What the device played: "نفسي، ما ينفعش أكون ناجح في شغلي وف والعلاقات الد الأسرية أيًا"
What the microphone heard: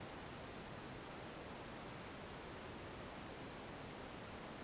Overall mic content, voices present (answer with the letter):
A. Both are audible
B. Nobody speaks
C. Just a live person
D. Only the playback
B